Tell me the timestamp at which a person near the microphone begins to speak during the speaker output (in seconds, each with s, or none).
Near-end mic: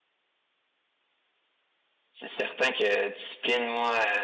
2.1 s